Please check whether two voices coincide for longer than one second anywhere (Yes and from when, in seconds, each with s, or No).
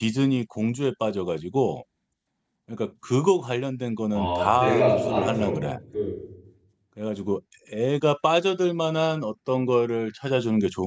Yes, from 4.1 s